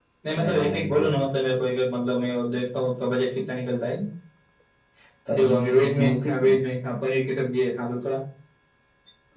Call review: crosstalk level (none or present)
present